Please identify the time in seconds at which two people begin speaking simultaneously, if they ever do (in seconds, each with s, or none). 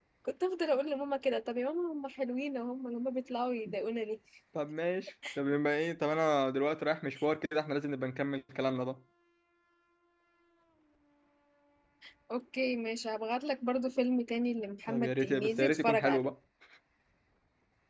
14.9 s